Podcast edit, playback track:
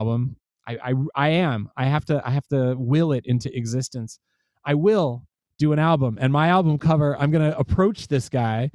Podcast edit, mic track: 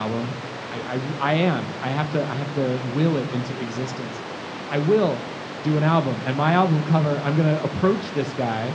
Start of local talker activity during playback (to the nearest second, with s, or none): none